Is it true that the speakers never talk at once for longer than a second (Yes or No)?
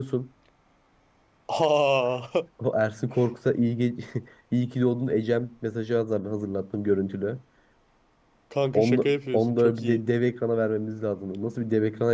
No